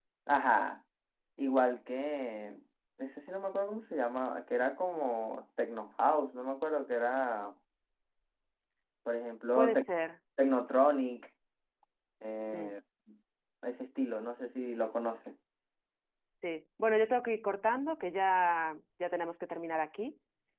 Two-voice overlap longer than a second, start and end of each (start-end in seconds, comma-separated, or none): none